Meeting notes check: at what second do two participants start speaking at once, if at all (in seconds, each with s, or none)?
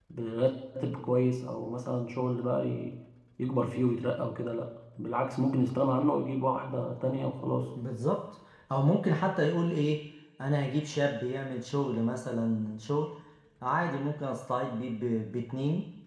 none